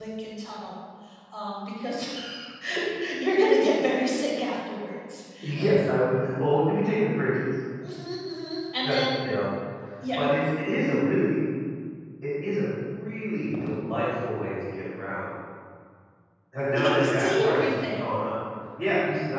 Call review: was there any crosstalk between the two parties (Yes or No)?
Yes